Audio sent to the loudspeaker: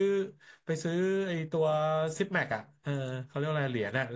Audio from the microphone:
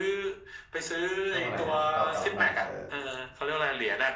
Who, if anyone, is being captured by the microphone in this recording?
both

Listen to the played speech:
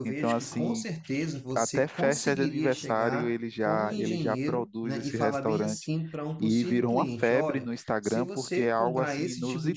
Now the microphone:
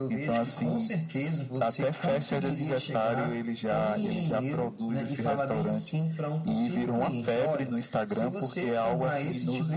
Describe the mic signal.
echo only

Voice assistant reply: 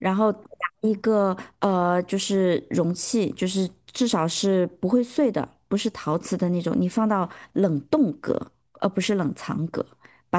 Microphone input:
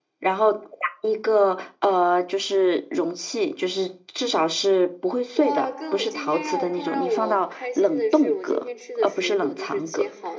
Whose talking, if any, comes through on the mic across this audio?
both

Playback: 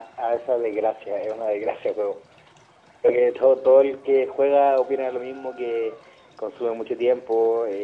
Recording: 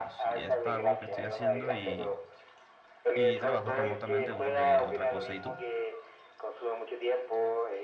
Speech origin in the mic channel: both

